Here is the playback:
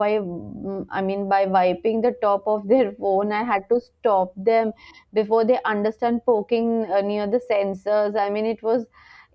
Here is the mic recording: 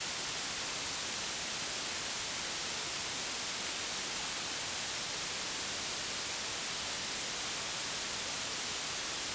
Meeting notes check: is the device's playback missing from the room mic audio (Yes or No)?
Yes